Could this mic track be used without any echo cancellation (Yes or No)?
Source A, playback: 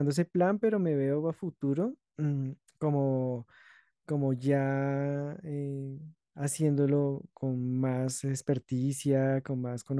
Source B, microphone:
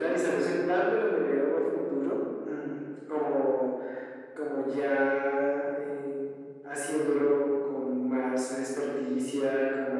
No